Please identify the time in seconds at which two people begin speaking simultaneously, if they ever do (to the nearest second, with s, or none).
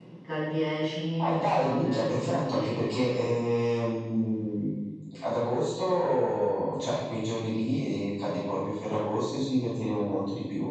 1 s